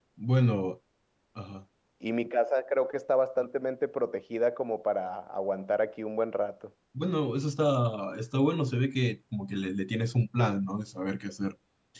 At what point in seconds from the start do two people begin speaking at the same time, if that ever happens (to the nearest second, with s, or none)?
none